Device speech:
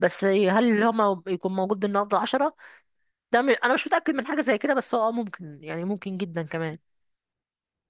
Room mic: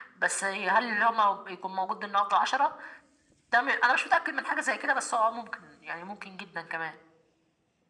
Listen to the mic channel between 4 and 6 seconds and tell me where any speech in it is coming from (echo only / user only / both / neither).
echo only